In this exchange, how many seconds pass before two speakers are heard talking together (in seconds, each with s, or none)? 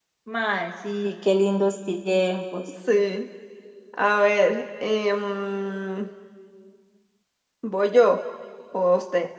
none